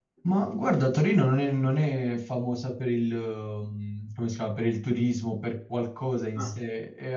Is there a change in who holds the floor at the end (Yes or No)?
No